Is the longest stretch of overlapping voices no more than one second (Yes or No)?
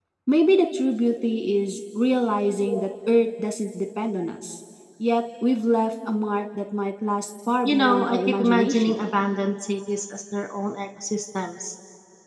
No